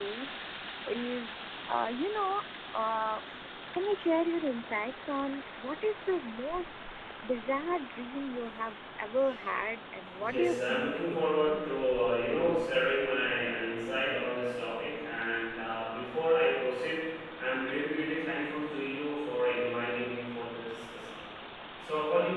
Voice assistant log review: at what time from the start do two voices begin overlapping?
10 s

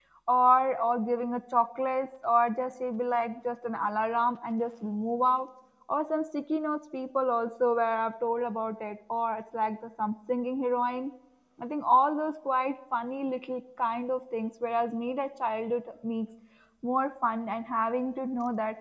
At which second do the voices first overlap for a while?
none

